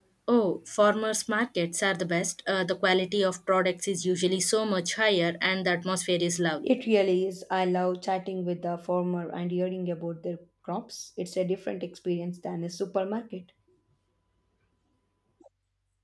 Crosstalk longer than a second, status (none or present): none